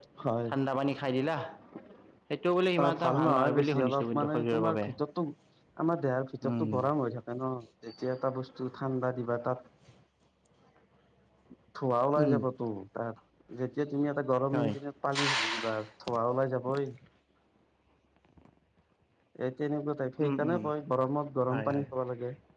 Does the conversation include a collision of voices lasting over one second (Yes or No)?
Yes